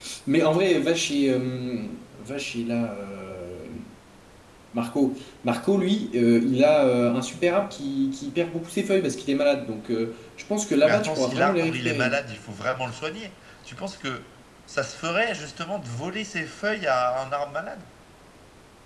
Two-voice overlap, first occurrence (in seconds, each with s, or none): 10.8 s